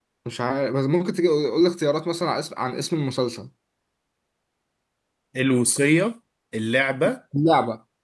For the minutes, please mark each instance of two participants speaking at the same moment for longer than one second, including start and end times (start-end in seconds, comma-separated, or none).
none